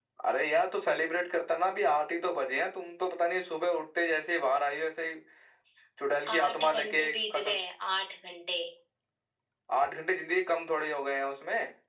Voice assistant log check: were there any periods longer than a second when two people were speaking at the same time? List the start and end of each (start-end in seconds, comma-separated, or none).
6.3-7.6